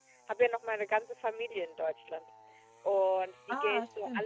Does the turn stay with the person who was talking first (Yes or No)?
Yes